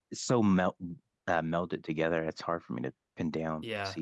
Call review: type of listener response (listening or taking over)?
taking over